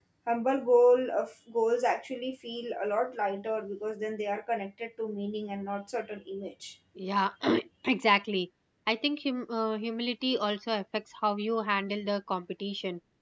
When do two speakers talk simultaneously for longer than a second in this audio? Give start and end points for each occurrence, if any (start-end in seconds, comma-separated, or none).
none